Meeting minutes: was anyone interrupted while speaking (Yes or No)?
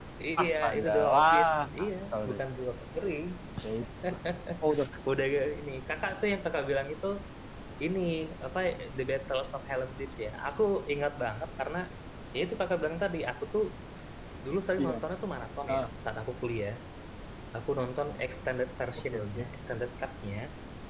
Yes